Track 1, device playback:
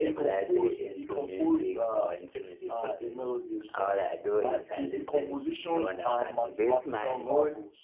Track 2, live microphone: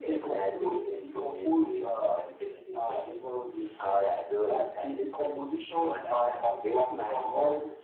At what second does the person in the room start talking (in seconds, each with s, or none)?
none